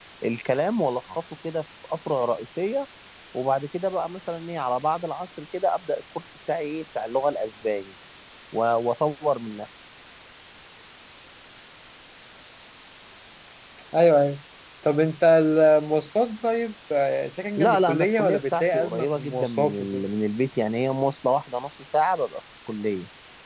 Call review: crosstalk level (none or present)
present